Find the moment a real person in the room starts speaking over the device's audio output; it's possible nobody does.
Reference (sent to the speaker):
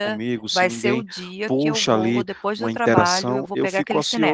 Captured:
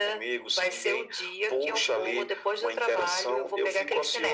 none

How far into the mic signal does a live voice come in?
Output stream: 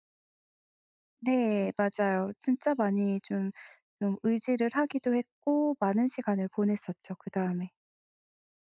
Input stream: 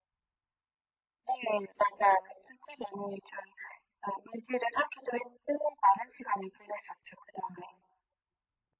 none

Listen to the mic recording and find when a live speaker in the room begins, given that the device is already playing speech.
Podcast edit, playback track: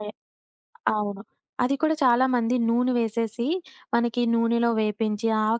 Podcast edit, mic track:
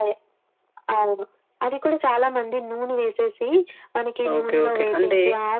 4.3 s

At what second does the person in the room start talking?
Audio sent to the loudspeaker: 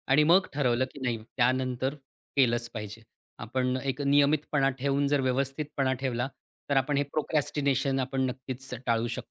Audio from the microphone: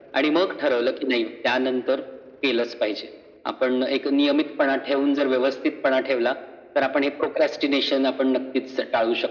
none

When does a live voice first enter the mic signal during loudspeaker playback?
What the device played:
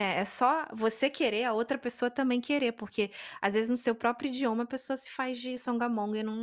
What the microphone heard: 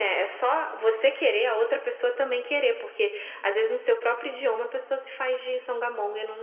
none

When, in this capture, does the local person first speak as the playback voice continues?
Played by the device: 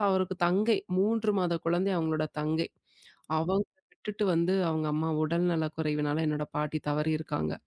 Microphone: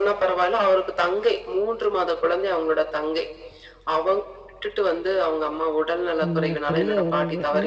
6.2 s

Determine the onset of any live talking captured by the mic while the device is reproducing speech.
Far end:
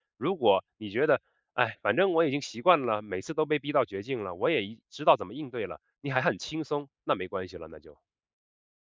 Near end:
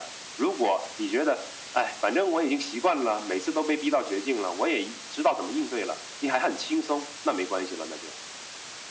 none

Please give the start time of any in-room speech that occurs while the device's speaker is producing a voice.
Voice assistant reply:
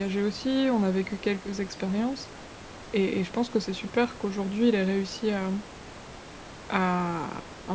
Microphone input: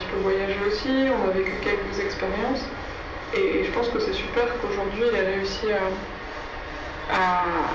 none

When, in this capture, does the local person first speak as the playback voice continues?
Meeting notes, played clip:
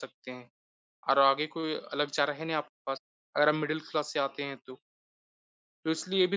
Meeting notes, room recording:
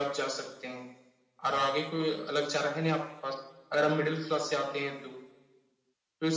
none

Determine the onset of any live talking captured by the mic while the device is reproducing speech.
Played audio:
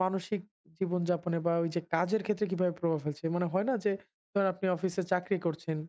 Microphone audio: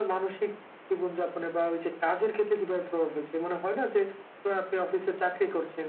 none

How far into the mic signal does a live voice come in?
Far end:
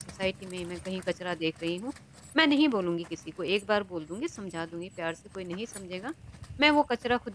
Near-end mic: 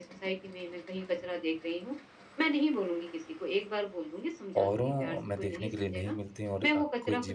4.6 s

